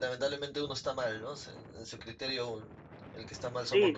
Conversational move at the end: taking over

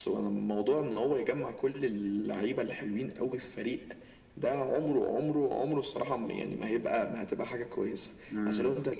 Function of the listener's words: listening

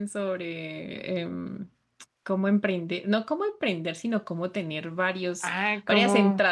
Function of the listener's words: taking over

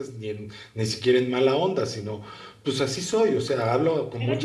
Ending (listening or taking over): taking over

